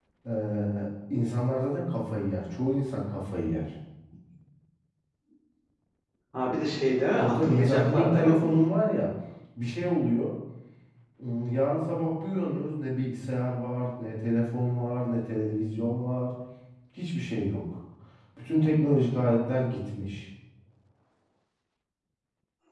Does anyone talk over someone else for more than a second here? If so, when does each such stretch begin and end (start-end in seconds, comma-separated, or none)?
7.2-8.6